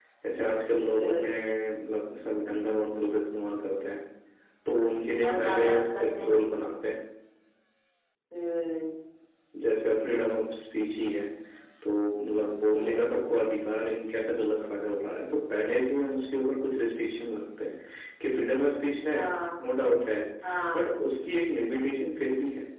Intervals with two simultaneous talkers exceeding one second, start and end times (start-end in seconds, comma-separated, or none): 5.1-6.4